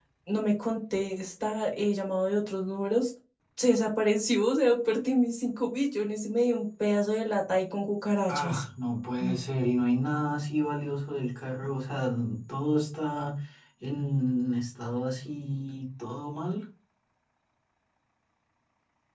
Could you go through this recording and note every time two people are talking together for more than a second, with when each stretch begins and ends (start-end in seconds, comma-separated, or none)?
none